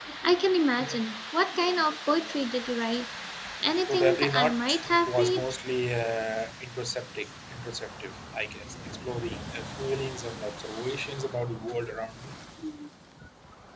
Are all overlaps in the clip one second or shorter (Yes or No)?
No